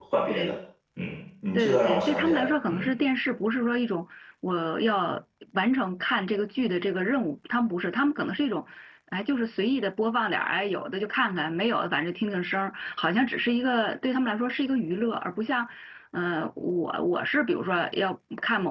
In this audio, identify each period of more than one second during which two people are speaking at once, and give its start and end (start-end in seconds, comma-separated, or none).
1.5-2.9